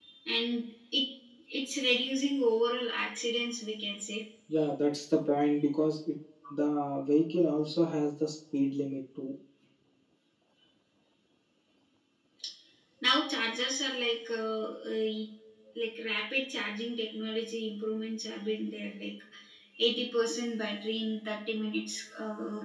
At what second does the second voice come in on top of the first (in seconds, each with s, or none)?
none